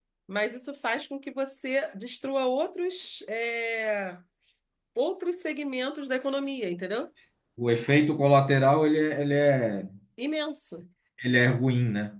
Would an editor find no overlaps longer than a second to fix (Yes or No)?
Yes